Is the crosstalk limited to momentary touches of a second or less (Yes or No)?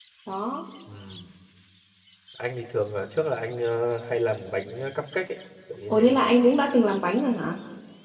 Yes